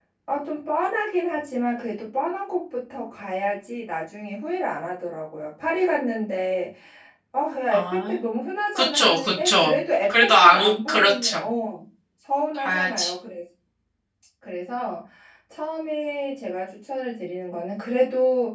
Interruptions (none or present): present